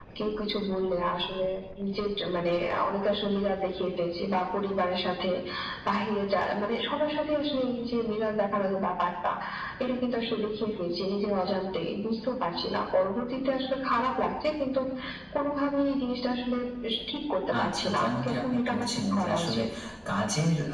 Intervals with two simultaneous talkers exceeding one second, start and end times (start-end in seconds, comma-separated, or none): 17.6-19.6